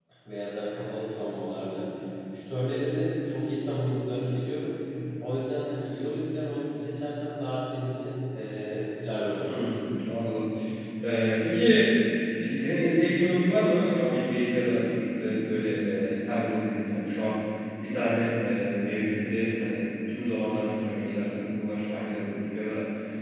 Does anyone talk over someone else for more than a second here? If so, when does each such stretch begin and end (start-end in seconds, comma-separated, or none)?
none